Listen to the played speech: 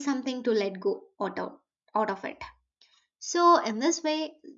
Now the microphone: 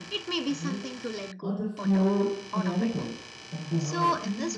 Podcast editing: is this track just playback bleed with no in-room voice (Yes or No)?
No